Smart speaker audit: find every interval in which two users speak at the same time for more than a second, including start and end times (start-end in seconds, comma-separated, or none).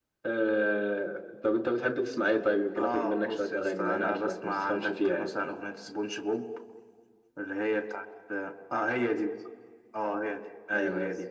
2.8-5.3